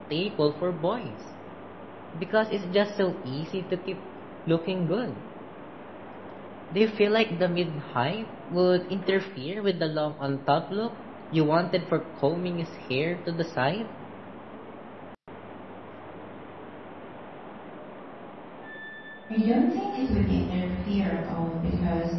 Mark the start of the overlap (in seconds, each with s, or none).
none